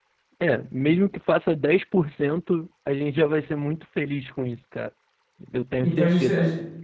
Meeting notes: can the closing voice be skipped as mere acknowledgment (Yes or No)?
No